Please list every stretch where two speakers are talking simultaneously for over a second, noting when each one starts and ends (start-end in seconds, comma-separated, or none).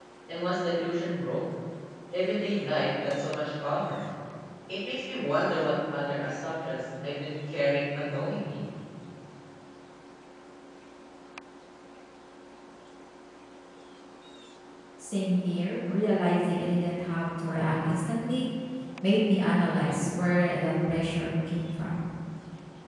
none